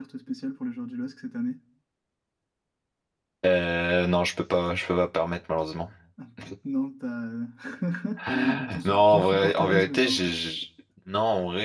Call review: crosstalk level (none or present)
present